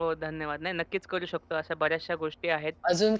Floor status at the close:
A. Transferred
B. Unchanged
A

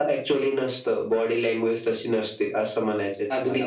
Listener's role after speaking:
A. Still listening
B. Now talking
B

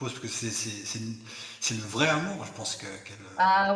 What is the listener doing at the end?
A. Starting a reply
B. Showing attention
A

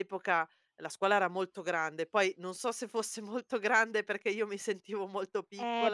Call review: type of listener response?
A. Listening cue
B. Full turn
B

